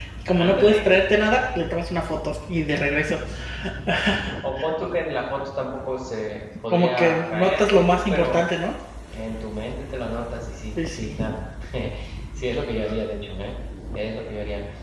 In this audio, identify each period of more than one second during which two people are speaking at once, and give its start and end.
6.7-8.4

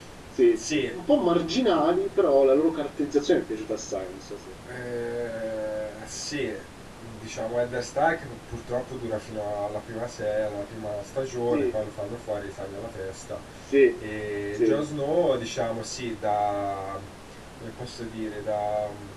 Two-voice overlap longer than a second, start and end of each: none

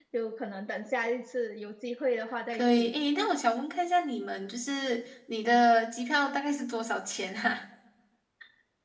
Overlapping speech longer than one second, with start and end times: none

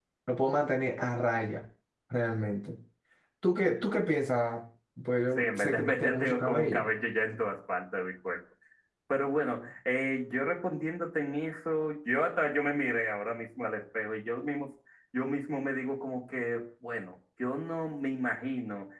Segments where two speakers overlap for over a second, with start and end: 5.4-6.9

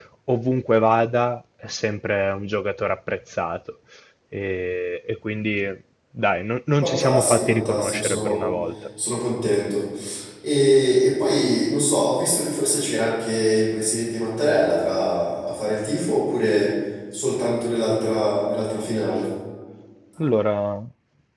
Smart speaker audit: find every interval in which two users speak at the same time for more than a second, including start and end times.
6.8-8.5

